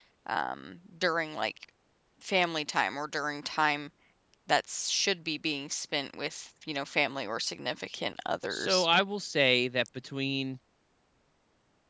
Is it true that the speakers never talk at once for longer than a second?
Yes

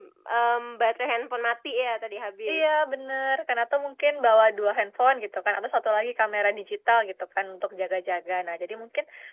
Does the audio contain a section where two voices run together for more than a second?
No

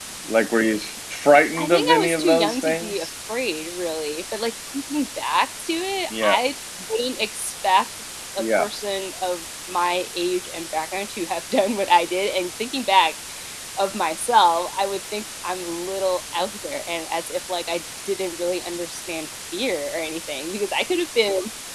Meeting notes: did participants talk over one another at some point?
Yes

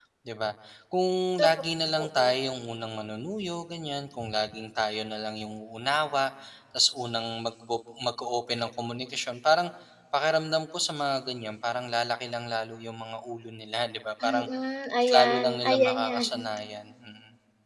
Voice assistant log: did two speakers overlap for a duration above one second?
Yes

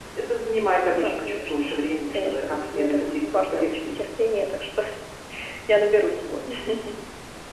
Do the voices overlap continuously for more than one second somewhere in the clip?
Yes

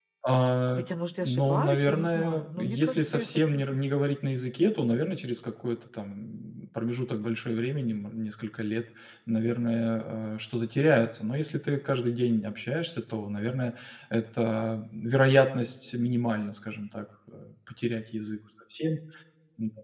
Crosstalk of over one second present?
Yes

